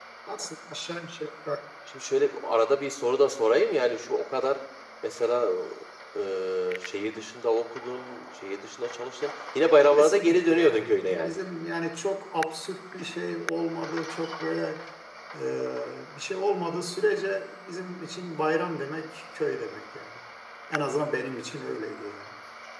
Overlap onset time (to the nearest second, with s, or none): 10 s